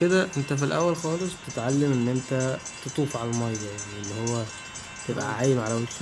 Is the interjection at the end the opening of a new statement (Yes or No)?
No